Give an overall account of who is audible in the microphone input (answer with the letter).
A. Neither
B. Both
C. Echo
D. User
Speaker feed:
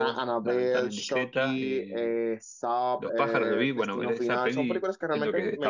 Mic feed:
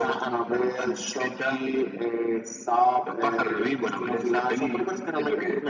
C